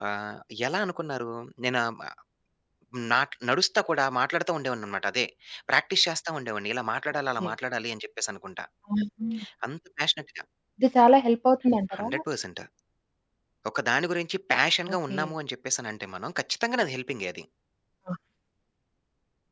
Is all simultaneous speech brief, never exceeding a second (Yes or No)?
Yes